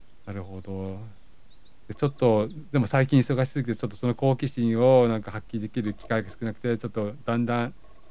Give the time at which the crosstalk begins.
none

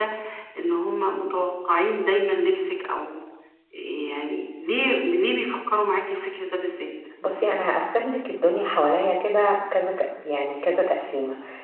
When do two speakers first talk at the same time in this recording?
none

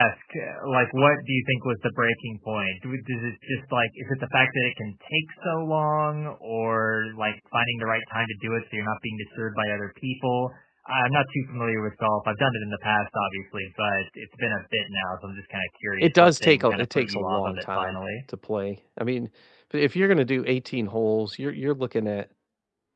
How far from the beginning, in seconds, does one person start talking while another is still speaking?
16 s

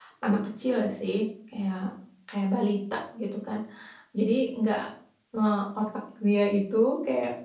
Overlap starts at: none

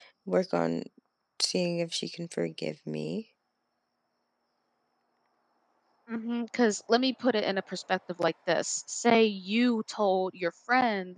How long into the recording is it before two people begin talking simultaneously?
none

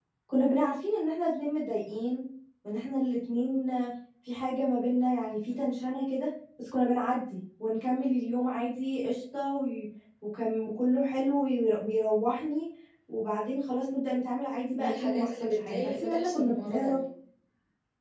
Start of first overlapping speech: 15 s

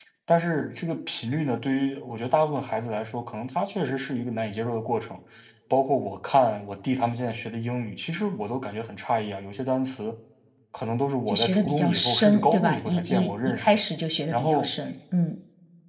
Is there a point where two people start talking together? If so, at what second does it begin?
11 s

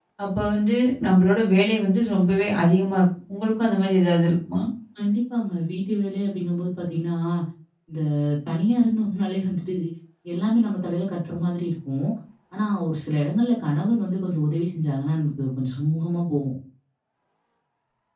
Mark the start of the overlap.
none

